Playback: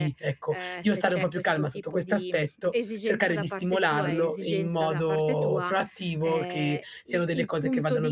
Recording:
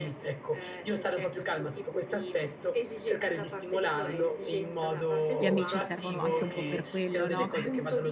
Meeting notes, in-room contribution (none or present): present